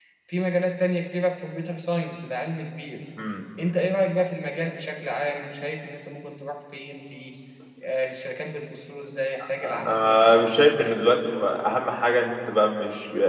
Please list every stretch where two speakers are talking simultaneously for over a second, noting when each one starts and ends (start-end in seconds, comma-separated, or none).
9.6-10.9